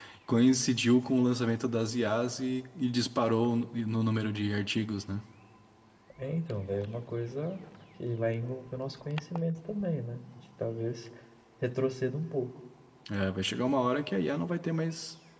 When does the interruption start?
none

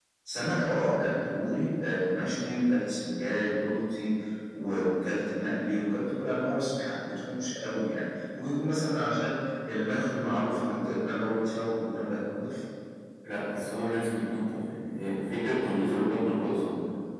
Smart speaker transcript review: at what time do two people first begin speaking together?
none

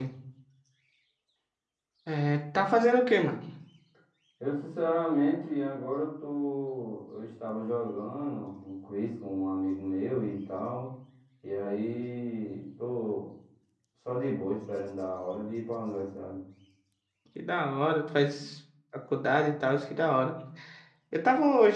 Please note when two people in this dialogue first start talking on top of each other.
none

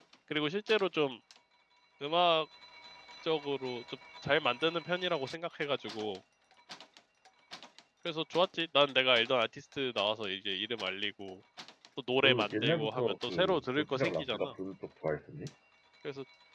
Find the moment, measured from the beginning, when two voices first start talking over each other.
12.2 s

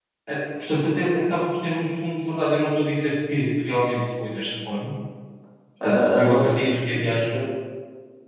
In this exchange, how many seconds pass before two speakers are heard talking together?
5.8 s

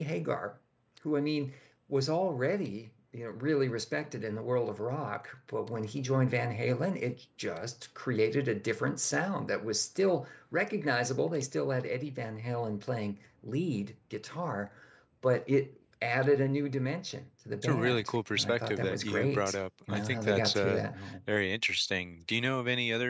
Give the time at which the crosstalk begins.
17.6 s

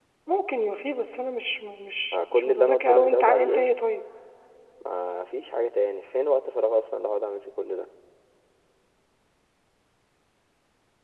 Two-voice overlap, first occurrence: 2.1 s

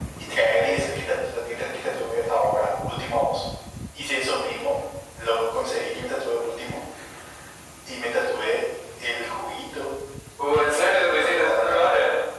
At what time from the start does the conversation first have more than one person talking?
10.5 s

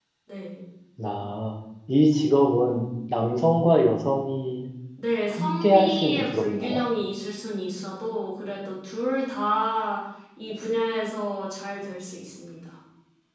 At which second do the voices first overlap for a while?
5.3 s

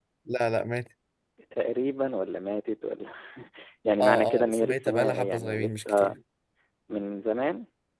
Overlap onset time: 4.0 s

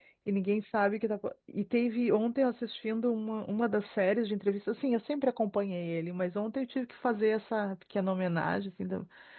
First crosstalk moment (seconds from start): none

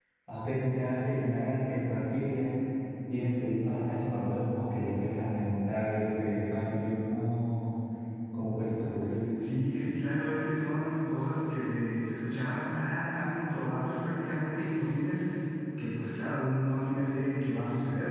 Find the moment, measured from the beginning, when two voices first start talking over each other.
none

